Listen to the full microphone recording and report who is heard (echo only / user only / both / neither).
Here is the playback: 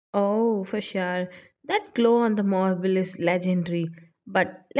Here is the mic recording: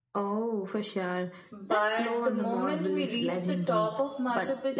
both